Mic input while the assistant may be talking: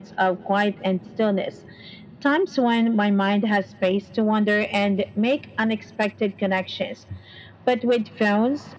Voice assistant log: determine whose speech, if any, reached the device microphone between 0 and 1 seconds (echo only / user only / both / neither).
echo only